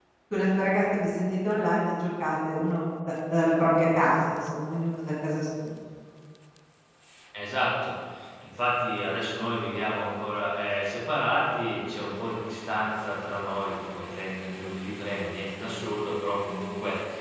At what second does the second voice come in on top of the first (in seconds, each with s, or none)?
none